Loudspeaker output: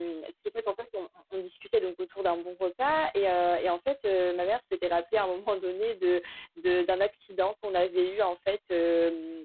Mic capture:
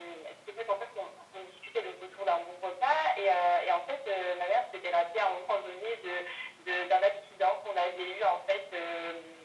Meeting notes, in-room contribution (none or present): none